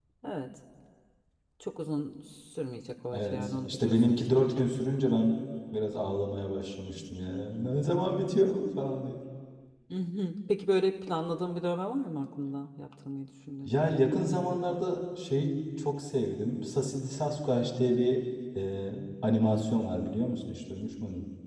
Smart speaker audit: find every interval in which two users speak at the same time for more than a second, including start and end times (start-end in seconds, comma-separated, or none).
3.1-4.7